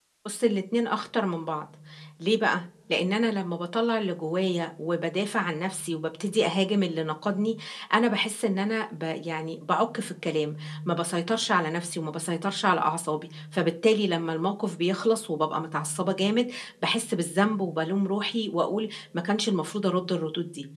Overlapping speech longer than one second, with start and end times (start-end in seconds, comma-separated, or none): none